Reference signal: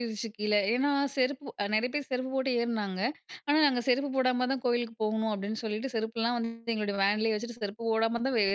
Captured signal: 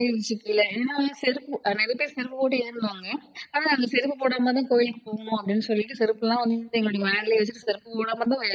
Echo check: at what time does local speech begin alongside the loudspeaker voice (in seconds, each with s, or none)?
none